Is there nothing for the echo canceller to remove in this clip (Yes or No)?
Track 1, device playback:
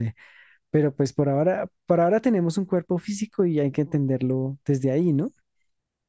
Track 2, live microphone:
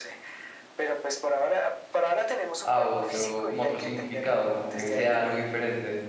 No